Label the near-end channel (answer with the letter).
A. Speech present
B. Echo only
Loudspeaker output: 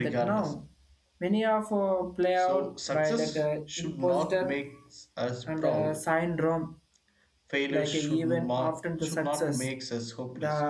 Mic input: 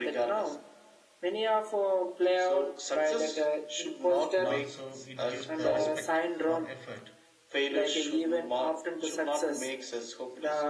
A